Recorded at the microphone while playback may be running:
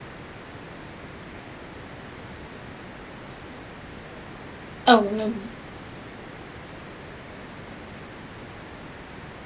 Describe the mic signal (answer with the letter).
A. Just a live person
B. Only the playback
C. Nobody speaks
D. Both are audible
A